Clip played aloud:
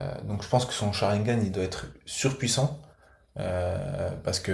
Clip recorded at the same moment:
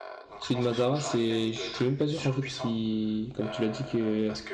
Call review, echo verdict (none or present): present